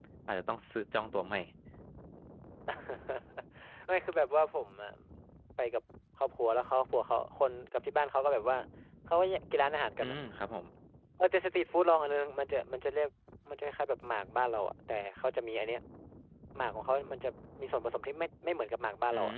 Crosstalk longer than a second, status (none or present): none